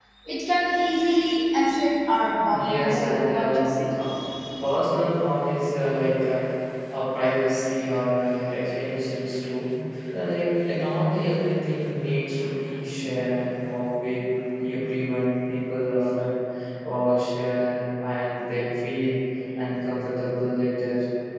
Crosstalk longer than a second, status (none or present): present